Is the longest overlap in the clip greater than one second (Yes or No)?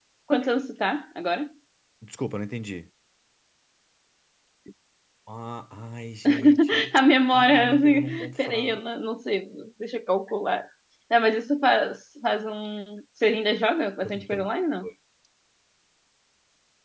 Yes